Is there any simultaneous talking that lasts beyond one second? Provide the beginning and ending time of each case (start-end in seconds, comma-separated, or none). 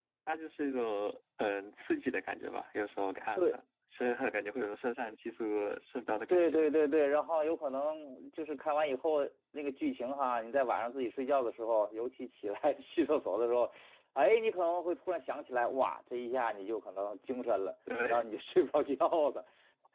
none